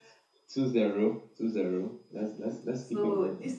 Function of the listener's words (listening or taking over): taking over